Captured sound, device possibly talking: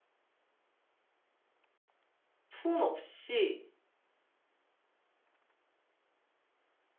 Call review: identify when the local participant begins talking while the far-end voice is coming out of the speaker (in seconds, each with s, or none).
2.5 s